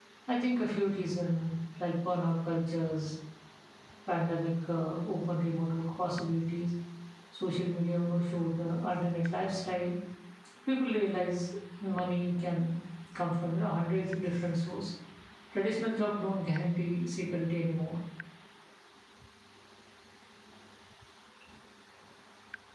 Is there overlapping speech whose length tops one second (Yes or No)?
No